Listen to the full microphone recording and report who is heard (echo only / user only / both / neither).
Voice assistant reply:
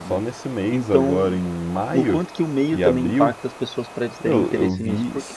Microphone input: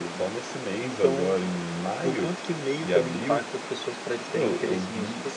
echo only